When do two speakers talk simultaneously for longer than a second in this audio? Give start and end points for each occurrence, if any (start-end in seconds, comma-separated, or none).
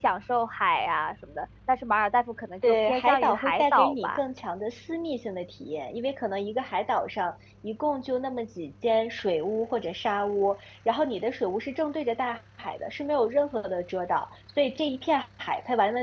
2.6-4.2